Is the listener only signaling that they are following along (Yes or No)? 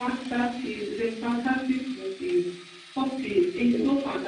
Yes